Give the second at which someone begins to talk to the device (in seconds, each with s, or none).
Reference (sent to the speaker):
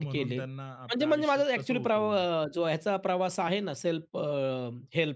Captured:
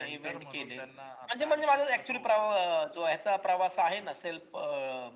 none